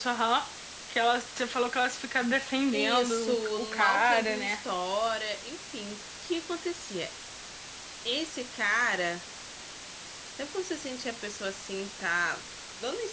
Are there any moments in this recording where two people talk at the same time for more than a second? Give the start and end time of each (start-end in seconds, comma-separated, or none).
2.7-4.6